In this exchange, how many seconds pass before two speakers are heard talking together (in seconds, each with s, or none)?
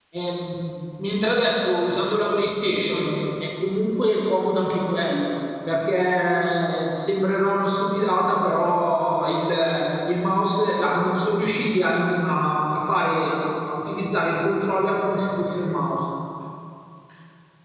none